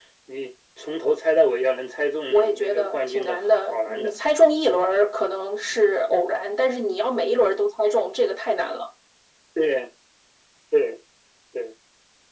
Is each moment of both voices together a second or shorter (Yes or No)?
No